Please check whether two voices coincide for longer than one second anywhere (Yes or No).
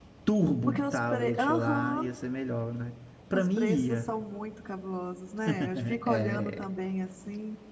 Yes